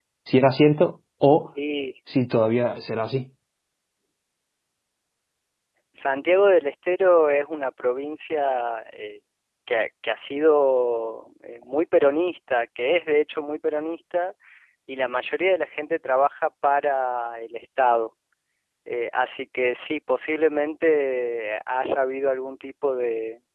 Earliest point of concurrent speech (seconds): none

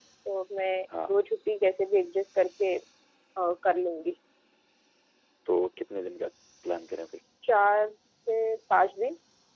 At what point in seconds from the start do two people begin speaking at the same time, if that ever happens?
none

